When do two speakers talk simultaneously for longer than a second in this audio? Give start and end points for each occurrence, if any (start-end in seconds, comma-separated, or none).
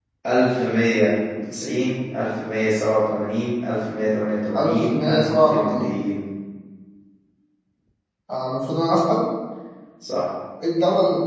4.6-5.9